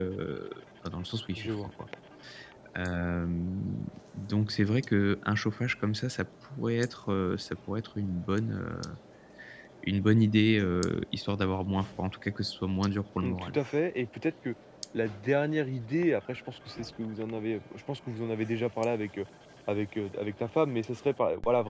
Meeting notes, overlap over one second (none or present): none